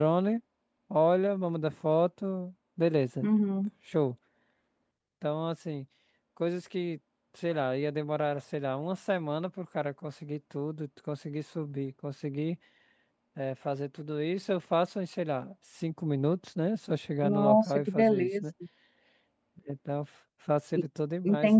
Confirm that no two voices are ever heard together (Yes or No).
No